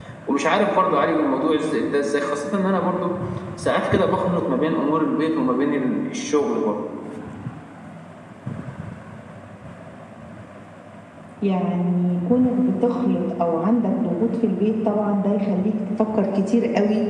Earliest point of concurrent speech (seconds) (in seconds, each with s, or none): none